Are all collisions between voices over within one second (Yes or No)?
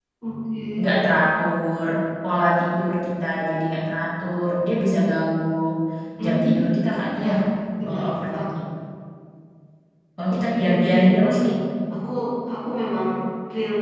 No